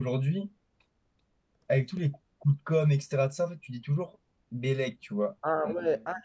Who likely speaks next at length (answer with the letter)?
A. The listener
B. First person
A